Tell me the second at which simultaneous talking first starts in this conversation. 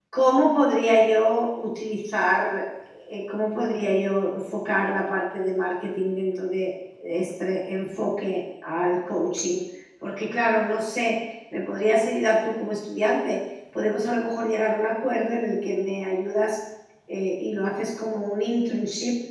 none

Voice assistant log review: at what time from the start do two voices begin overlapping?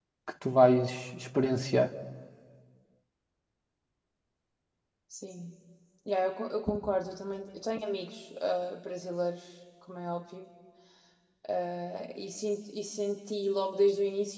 none

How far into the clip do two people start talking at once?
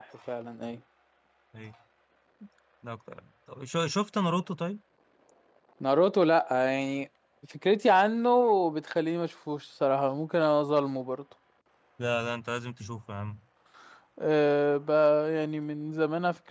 none

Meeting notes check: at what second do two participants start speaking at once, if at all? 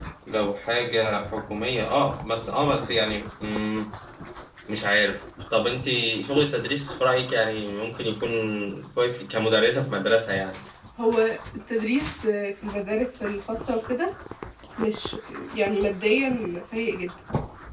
none

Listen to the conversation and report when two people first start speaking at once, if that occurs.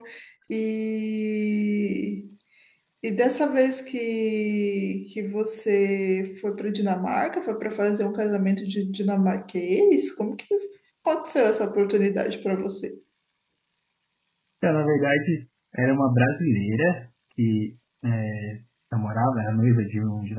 none

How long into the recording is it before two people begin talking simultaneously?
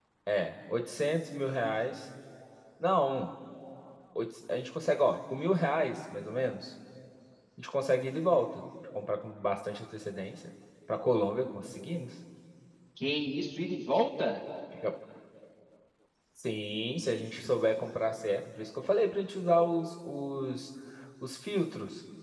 none

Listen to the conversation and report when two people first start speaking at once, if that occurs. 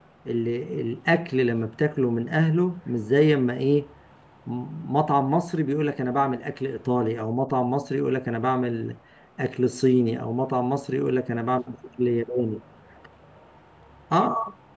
none

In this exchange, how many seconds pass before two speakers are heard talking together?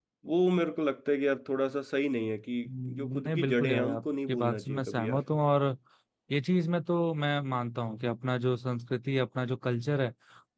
2.6 s

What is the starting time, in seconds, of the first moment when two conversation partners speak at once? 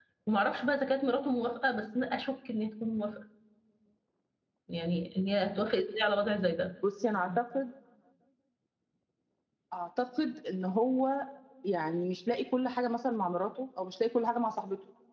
none

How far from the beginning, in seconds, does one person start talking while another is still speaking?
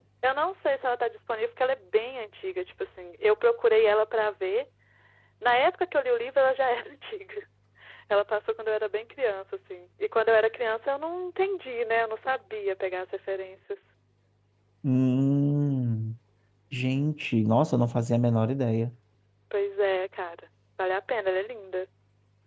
none

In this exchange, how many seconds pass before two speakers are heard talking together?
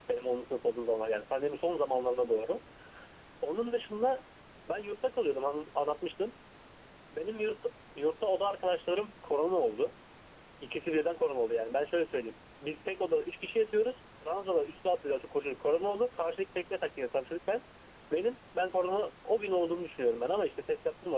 none

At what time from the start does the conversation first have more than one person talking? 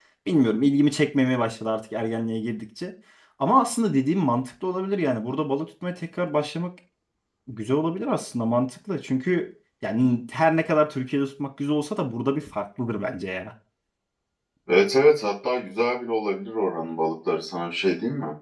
none

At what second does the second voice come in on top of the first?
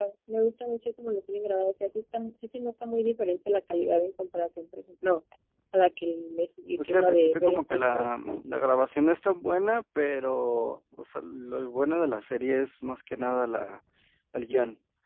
6.8 s

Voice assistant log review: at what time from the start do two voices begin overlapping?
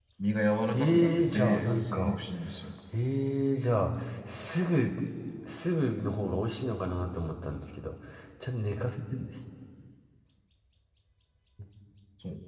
0.7 s

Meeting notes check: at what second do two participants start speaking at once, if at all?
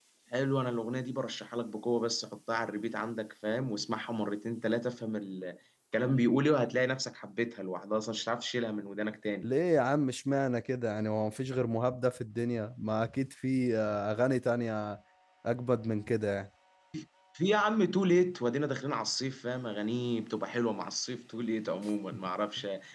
none

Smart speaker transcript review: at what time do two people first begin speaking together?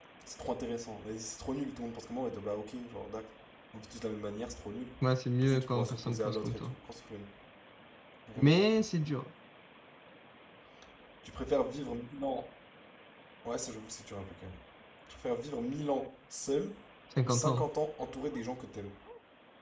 5.4 s

